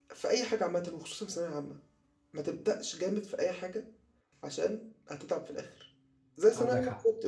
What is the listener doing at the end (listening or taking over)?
listening